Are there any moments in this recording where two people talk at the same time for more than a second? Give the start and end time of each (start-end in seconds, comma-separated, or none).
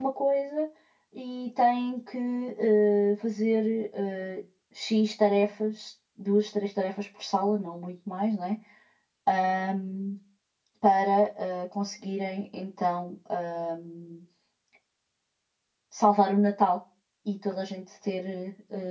none